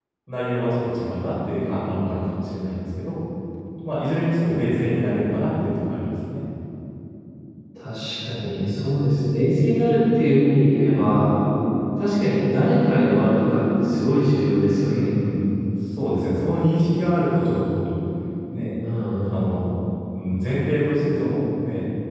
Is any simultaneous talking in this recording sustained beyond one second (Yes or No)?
No